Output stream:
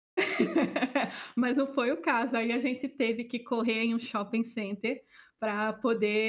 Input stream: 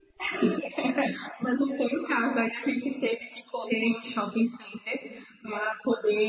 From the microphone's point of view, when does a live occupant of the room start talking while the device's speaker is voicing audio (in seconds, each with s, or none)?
none